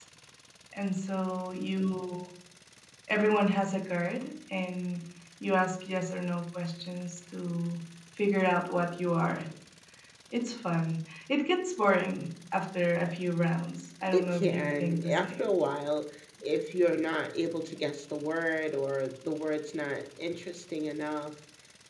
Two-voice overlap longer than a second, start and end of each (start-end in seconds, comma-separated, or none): 14.1-15.4